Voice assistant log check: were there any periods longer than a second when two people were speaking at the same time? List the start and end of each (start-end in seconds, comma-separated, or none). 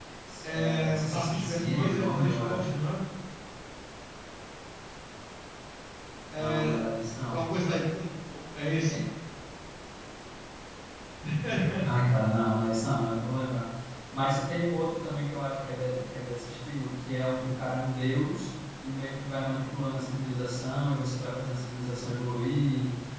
0.5-2.7